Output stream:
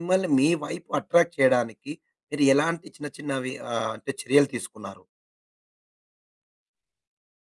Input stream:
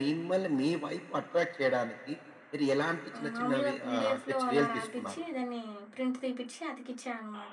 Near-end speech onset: 3.2 s

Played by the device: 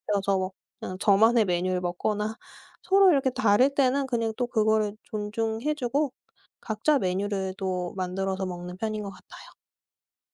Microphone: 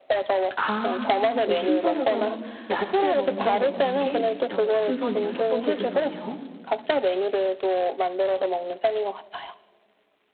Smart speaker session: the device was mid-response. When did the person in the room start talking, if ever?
0.6 s

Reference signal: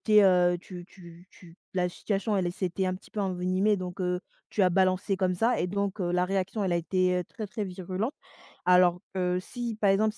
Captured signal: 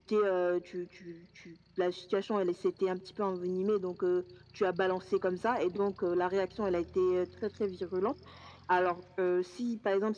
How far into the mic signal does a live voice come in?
none

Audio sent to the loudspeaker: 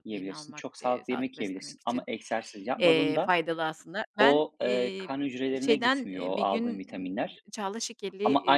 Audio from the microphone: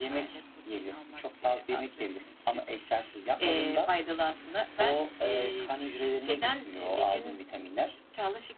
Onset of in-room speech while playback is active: none

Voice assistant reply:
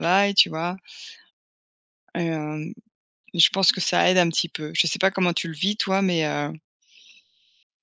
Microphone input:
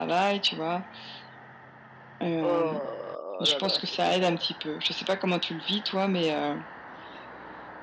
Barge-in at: 2.4 s

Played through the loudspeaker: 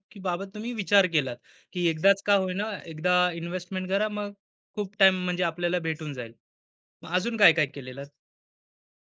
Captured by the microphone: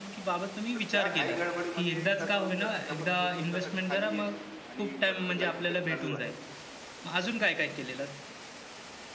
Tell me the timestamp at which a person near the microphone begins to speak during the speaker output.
0.7 s

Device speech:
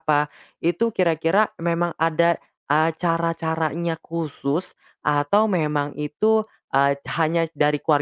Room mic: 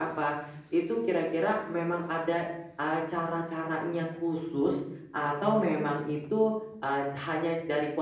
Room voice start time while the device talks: none

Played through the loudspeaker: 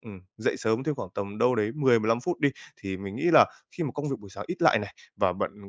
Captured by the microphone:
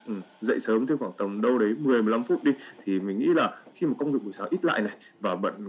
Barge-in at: none

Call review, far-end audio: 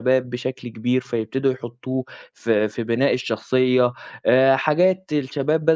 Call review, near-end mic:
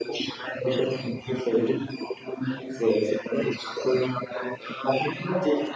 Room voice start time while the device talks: none

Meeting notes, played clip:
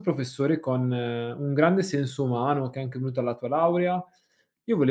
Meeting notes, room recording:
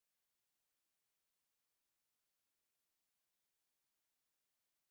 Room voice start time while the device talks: none

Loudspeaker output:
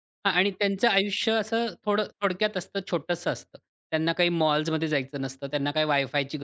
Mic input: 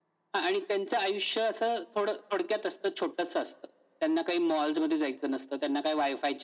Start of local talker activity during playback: none

